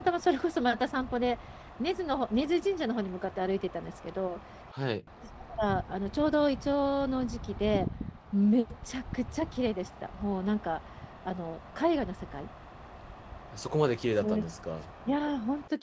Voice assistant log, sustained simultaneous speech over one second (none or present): none